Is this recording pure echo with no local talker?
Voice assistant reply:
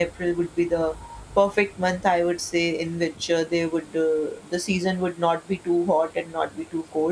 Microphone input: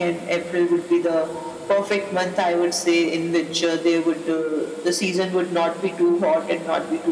Yes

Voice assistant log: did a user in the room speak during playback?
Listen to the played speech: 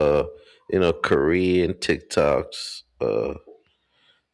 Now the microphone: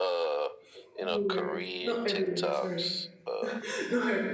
Yes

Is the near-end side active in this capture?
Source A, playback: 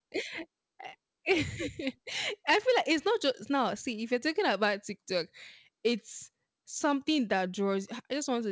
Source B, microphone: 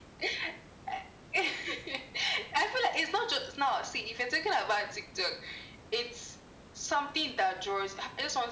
No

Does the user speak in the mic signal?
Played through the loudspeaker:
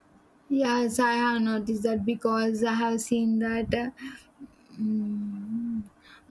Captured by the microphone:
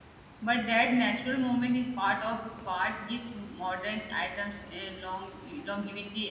Yes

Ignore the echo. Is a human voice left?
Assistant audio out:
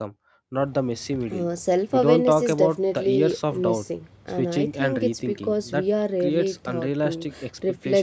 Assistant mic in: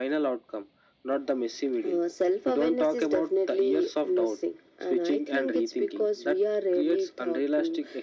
No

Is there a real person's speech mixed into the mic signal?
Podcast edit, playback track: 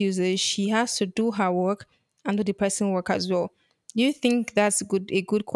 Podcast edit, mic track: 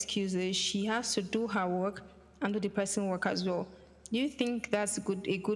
No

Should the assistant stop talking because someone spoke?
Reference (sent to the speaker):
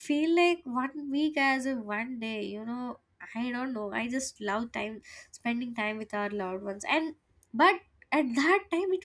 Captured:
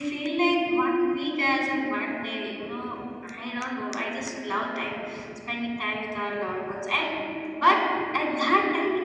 No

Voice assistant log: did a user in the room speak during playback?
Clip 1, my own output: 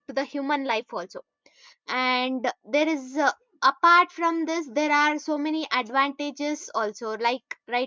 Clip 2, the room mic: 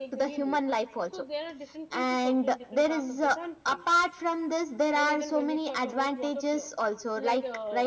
Yes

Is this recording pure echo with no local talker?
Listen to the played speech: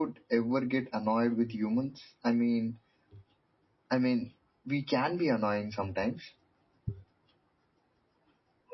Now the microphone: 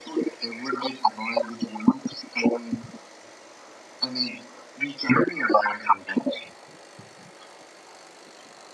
Yes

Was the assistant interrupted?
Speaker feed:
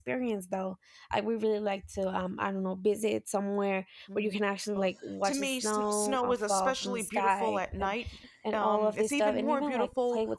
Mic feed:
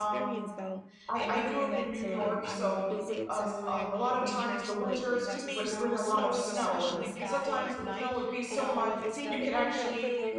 Yes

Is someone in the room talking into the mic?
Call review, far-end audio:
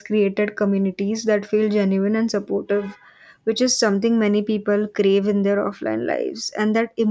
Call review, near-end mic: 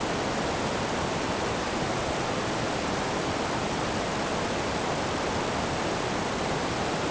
No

